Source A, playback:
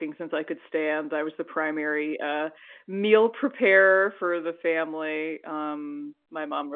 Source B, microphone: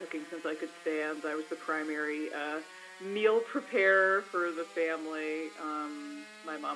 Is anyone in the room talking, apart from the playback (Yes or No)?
No